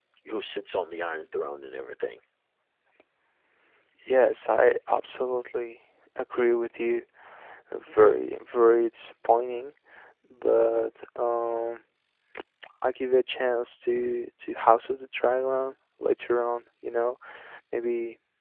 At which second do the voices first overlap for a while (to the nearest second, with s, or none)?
none